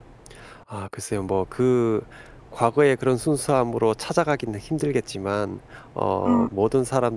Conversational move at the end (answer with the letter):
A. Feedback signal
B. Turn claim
A